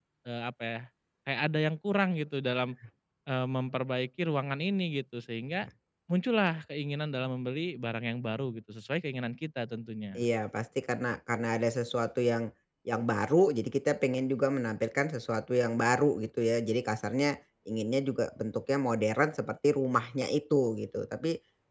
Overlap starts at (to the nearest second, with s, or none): none